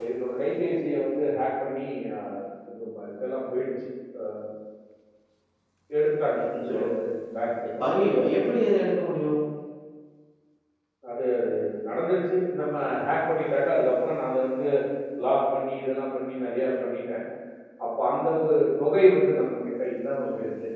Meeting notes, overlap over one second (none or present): none